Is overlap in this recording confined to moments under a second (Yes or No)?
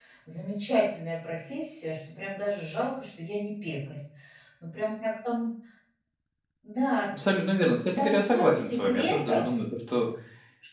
No